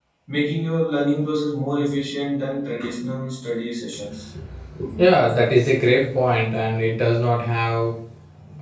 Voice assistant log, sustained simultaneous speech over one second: none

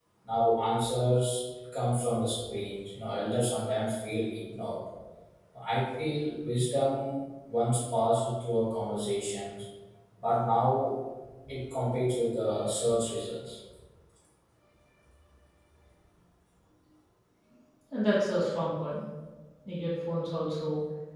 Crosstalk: none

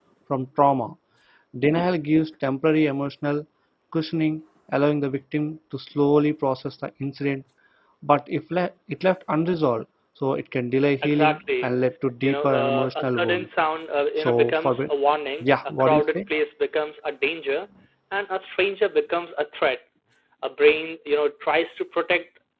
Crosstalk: present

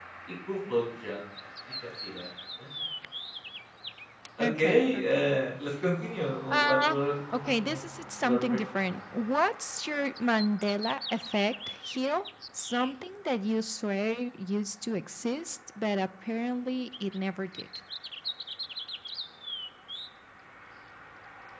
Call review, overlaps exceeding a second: present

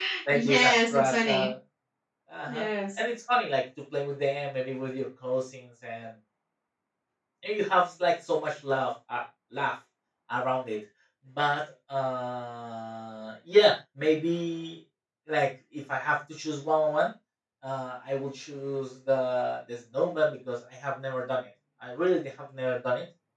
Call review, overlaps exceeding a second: present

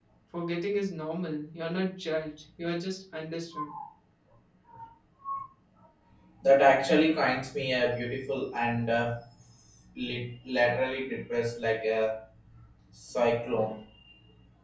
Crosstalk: none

